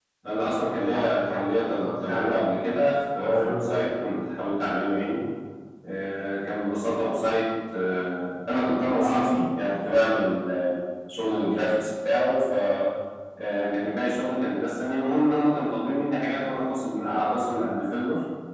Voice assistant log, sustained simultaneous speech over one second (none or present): present